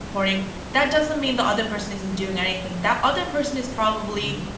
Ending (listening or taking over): listening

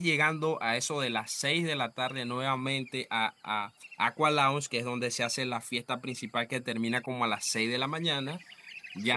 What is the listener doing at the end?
listening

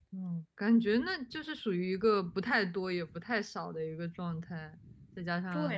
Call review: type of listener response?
taking over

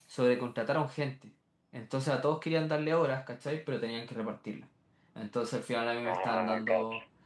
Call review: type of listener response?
listening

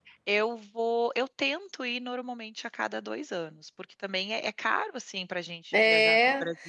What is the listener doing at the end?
taking over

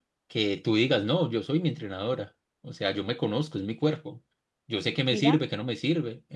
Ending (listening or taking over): listening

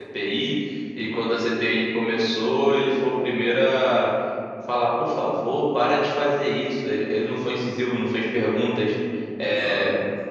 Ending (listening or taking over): listening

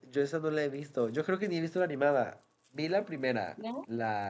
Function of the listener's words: listening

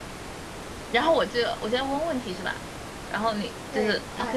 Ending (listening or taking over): taking over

